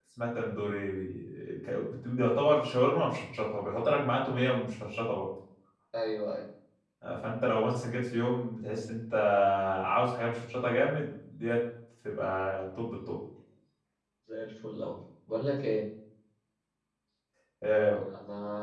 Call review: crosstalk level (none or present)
none